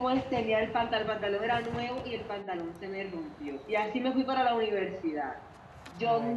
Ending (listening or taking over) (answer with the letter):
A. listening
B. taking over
A